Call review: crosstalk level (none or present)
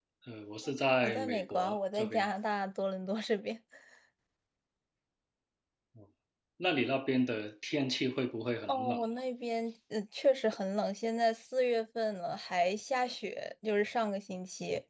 present